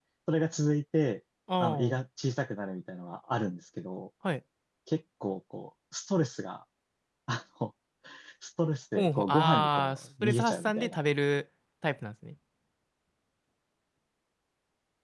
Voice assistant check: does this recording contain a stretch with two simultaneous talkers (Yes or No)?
Yes